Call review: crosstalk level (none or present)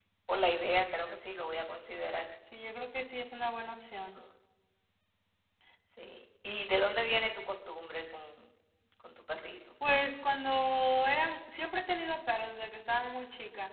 none